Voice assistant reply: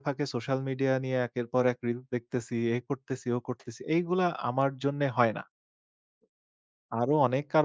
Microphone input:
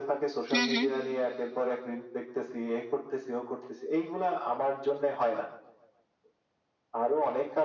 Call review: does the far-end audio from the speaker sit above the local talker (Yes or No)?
No